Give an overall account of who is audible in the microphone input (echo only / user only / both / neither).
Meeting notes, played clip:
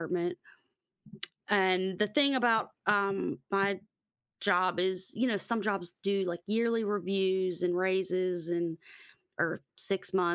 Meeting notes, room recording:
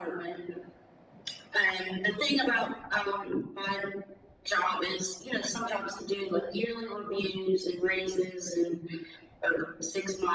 echo only